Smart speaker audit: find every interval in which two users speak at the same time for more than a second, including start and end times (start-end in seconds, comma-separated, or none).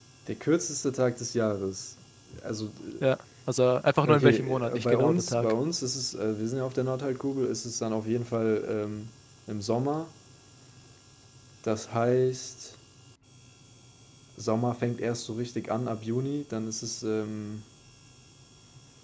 4.0-5.5